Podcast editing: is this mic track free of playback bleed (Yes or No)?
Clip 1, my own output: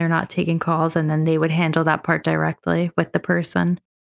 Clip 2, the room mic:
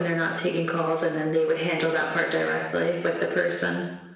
No